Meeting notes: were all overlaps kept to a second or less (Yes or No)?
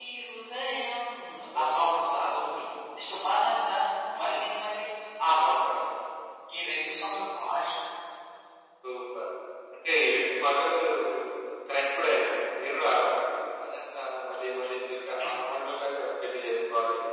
Yes